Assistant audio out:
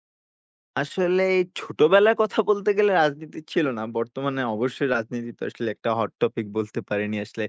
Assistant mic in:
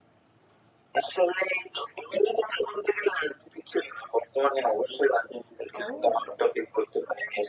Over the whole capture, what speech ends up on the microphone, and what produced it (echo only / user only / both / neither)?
both